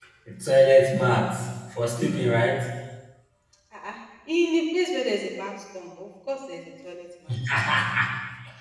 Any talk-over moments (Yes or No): No